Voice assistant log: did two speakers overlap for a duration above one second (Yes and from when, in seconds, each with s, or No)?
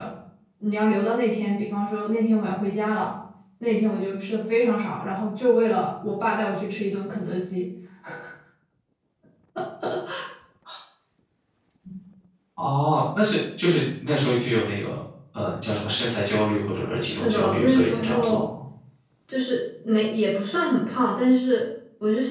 Yes, from 17.1 s